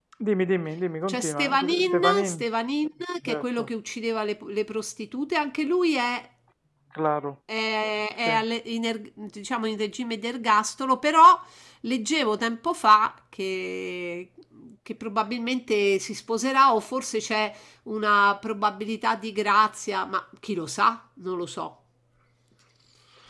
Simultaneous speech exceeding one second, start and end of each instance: 1.1-2.4

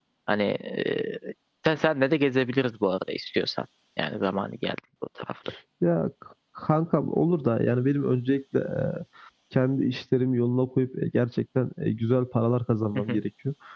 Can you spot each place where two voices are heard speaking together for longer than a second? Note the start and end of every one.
none

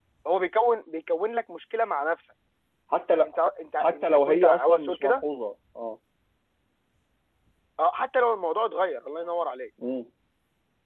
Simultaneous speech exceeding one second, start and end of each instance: 3.8-5.2

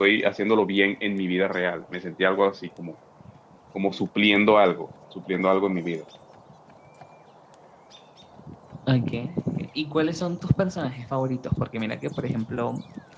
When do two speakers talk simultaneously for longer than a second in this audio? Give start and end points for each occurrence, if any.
none

